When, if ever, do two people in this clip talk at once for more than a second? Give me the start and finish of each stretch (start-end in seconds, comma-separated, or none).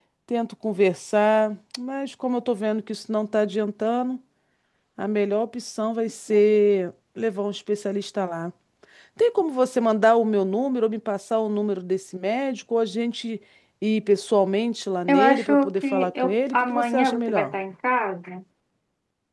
15.1-17.5